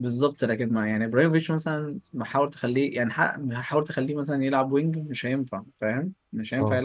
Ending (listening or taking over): taking over